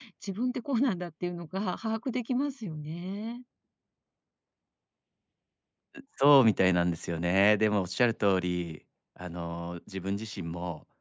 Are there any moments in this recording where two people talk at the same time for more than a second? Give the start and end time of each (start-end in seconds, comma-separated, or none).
none